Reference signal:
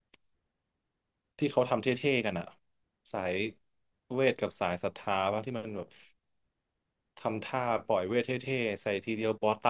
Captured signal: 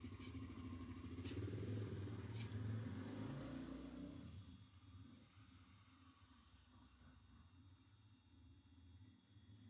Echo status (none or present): none